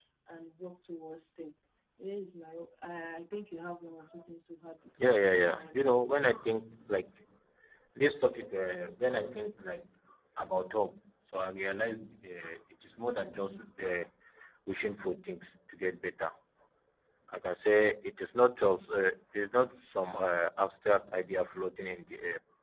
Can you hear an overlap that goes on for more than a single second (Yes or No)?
Yes